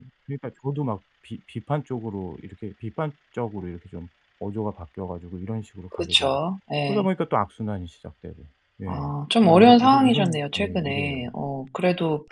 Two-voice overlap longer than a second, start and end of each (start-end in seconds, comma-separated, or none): 9.4-11.2